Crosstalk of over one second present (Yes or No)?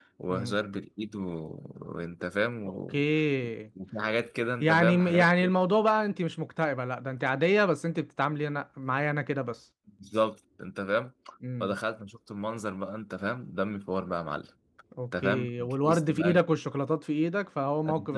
Yes